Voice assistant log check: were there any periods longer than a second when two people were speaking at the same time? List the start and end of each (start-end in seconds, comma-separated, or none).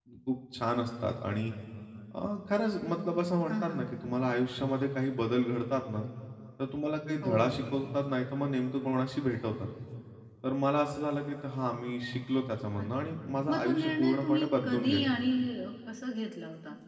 13.5-15.1